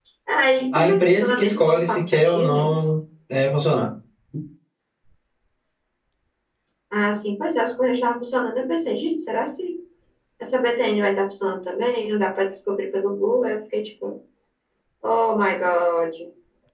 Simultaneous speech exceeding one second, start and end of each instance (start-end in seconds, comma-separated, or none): 0.8-2.7